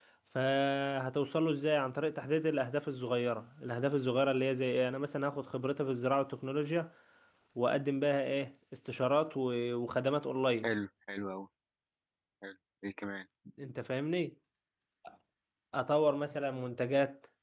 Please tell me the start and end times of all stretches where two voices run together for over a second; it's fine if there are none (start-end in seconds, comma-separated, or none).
none